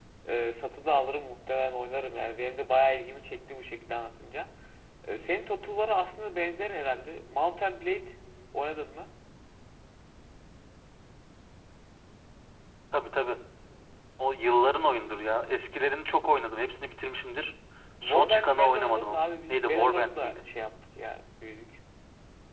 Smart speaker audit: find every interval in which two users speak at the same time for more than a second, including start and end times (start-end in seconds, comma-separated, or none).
18.0-20.4